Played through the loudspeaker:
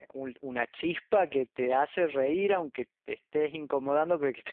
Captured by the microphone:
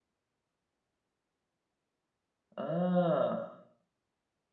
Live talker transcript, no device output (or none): Ah,